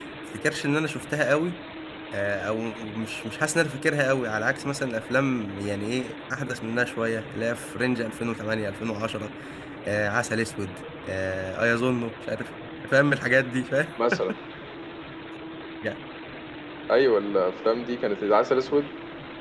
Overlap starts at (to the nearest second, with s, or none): none